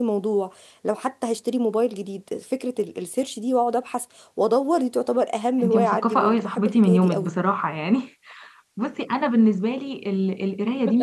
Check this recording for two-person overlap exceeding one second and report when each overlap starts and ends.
5.6-7.3

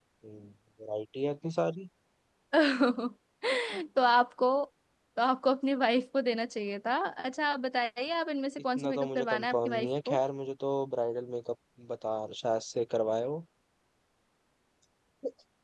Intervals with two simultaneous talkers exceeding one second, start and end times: 8.8-10.2

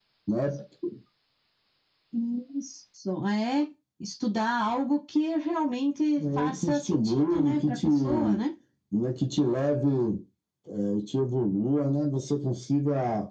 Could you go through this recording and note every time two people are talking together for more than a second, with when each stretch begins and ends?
6.2-8.4

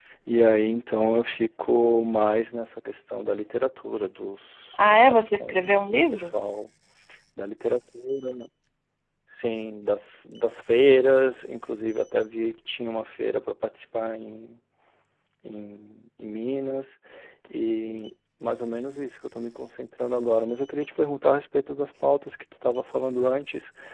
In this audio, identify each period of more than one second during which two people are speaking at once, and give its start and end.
4.9-6.3

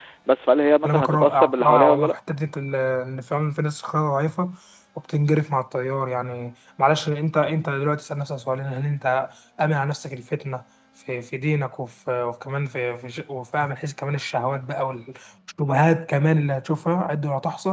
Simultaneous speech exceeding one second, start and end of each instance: 0.8-2.1

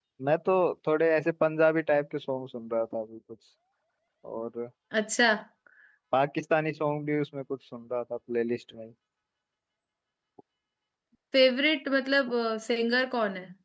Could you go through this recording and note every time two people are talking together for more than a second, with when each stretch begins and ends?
none

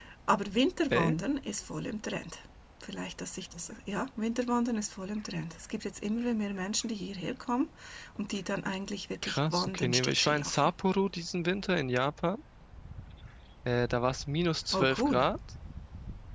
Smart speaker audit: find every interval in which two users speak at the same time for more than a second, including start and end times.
9.2-10.7

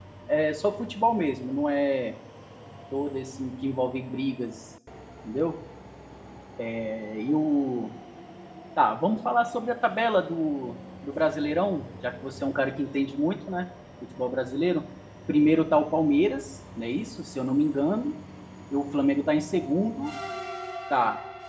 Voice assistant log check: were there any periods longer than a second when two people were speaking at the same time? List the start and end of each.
none

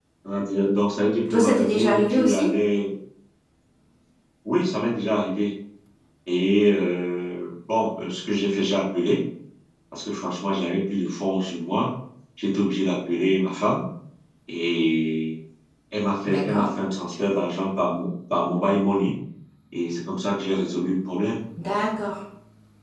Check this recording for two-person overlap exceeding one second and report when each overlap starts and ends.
1.3-2.5

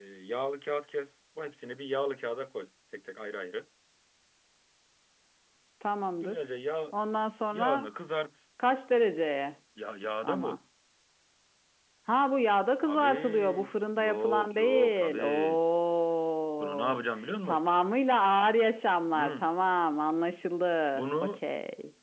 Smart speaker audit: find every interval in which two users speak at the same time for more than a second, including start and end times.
12.8-15.6

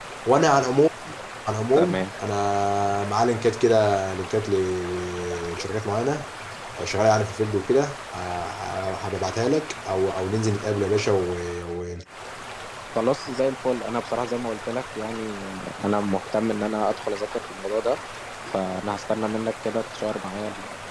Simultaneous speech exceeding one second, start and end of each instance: none

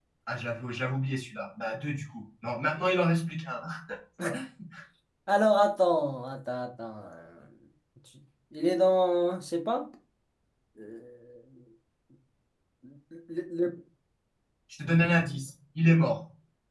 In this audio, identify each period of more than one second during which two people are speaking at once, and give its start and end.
none

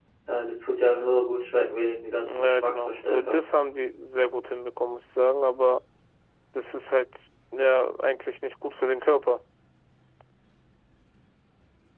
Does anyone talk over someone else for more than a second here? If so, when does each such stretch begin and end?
2.2-3.5

